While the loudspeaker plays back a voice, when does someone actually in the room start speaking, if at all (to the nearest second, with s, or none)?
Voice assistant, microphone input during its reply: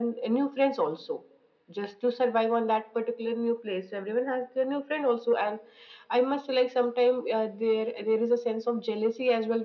none